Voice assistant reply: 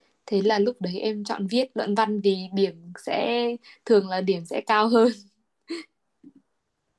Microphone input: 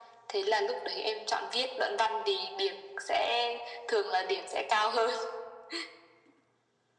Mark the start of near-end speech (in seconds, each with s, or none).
none